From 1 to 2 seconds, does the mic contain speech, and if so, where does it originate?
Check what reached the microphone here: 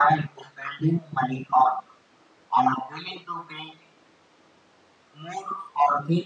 echo only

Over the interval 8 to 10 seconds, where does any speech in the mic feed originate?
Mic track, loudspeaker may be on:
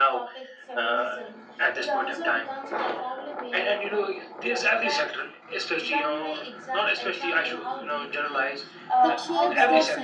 both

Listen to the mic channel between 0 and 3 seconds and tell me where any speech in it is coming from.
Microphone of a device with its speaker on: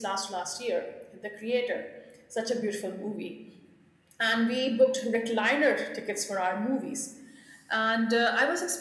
echo only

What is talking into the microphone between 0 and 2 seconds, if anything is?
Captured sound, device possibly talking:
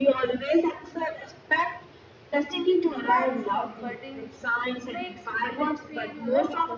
echo only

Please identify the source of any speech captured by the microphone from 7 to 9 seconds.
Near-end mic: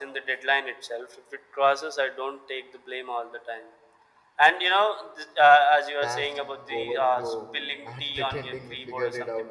both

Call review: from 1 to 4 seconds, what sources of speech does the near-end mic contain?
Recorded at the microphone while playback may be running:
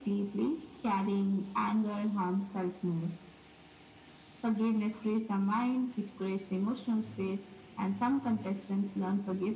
echo only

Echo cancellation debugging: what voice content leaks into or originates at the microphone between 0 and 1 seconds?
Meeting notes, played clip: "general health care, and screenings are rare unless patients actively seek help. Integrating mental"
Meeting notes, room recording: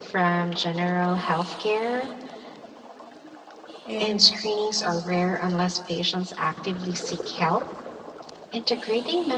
echo only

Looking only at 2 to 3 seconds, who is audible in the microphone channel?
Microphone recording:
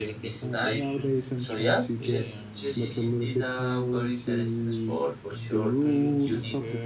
both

